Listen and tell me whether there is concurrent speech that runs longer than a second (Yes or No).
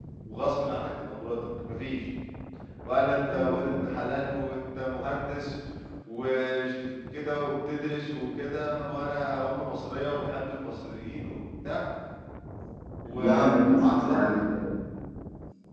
Yes